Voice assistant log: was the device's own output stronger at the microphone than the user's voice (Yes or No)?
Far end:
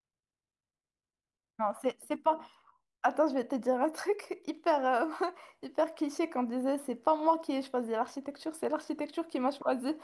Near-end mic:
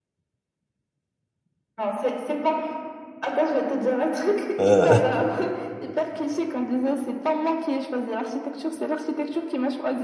No